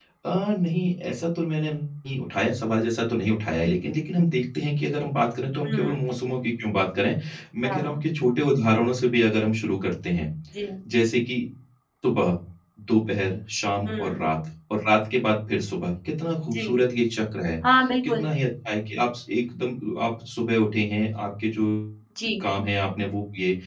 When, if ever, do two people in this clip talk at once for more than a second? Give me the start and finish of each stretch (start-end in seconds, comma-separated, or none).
none